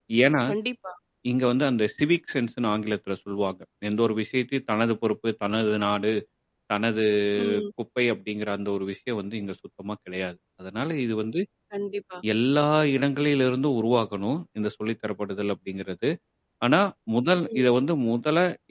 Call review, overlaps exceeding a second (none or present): none